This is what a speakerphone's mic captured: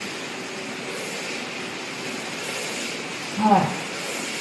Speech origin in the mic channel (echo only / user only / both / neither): user only